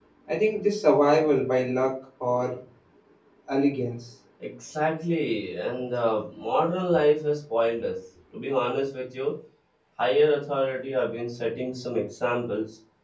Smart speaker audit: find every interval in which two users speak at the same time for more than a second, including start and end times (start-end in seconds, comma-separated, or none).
none